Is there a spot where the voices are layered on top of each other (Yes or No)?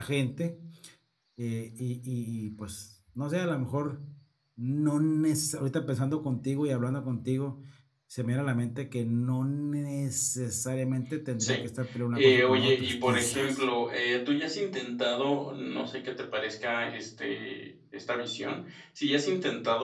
Yes